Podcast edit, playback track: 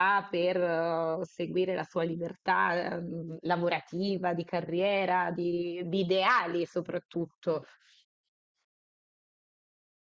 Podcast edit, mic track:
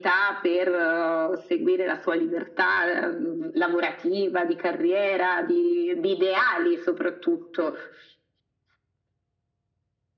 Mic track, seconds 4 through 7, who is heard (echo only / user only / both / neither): echo only